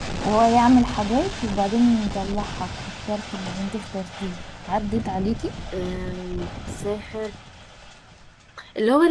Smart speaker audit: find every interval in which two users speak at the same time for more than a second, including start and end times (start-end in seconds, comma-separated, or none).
none